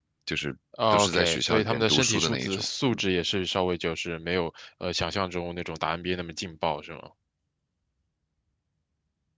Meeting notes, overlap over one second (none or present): present